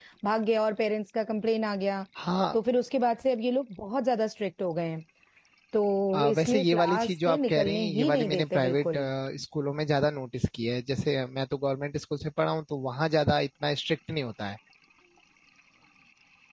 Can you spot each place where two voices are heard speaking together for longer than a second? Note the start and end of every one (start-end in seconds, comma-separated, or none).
6.1-8.9